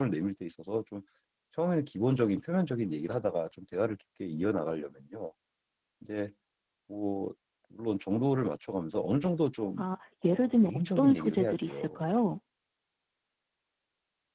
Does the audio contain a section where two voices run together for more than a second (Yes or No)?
Yes